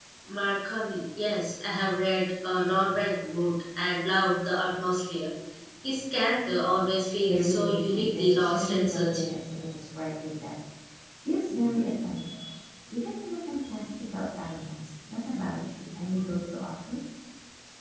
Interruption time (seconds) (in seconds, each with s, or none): 7.2 s